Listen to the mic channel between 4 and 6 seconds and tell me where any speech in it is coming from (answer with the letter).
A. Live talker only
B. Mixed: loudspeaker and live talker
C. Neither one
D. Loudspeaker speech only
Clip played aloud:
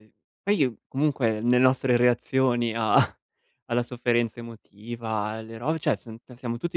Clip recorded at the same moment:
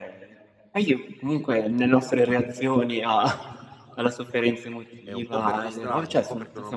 B